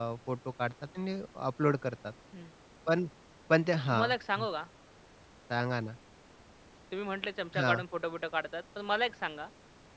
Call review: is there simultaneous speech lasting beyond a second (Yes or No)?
No